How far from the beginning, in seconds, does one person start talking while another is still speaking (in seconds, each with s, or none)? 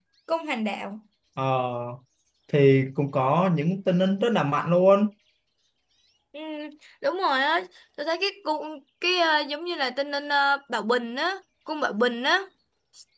none